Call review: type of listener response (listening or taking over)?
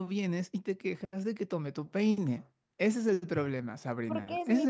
taking over